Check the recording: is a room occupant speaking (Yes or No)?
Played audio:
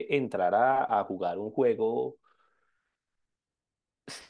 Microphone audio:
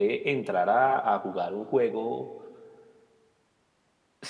No